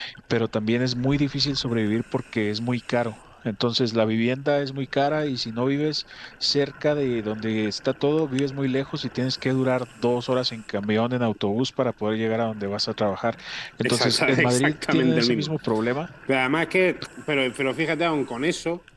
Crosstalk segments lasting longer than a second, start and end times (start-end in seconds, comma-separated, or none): 13.8-15.5